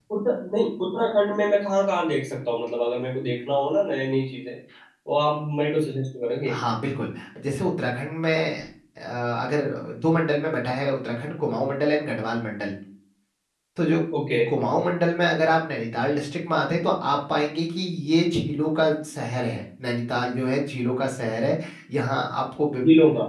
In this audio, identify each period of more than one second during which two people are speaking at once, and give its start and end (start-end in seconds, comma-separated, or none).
none